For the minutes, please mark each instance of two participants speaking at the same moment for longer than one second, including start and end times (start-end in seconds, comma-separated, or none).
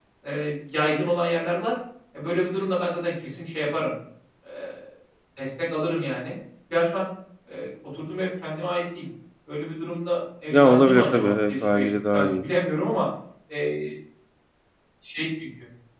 10.5-12.4